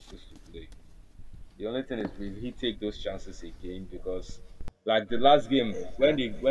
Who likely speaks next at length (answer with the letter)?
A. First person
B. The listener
A